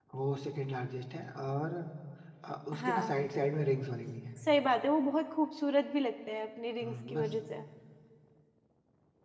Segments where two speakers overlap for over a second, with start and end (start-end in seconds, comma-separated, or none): none